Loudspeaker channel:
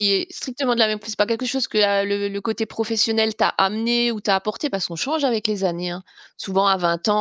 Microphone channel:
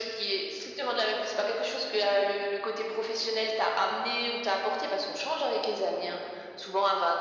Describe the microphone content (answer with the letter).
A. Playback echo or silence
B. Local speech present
A